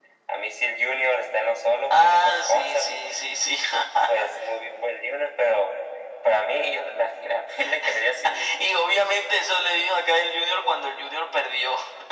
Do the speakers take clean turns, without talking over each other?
No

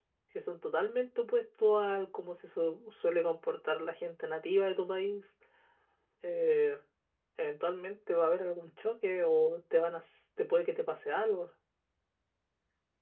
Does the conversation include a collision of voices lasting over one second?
No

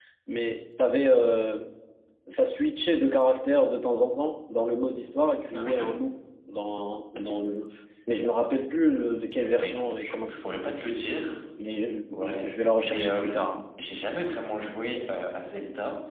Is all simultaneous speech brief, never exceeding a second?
No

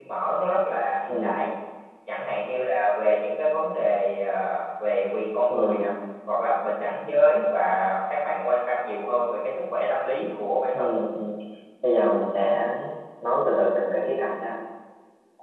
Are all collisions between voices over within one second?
Yes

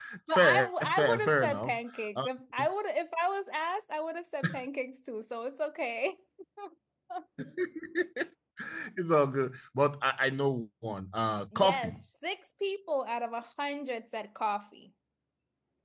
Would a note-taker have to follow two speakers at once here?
Yes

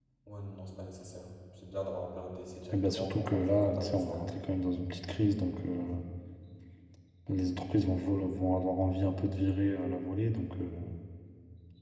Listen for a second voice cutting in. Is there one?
Yes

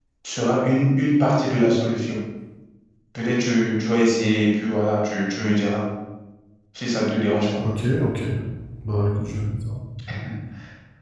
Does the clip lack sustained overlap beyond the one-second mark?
Yes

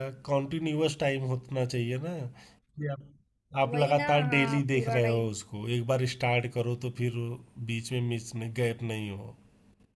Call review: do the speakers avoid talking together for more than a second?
No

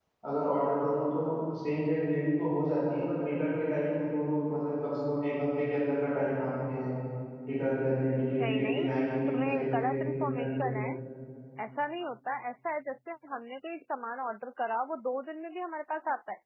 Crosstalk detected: Yes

